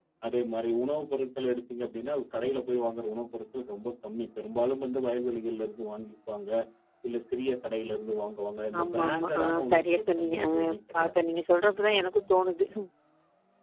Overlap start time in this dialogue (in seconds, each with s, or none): 8.7 s